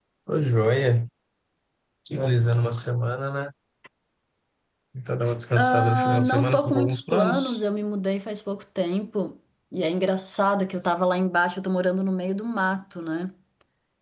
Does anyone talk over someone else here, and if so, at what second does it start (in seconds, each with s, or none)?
5.6 s